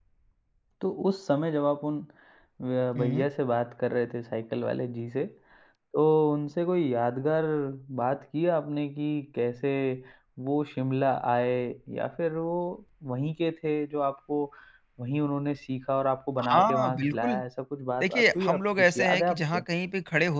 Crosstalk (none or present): present